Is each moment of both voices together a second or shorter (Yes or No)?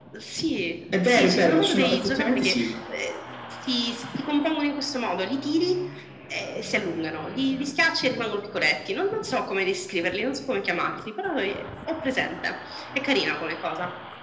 No